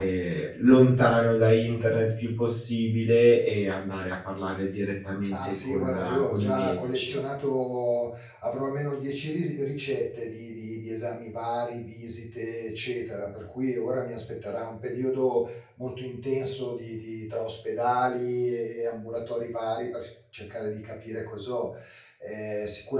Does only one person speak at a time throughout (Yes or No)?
No